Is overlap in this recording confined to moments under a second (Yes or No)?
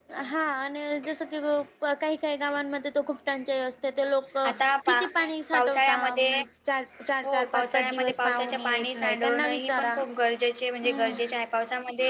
No